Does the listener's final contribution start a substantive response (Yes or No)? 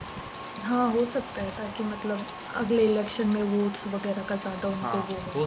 Yes